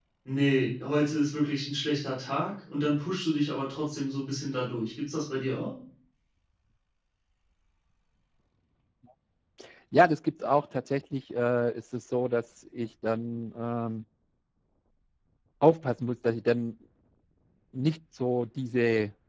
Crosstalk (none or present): none